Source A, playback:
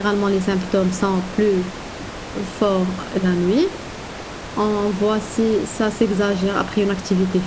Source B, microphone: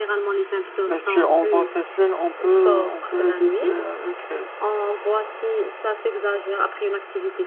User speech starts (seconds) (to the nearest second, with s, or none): 1 s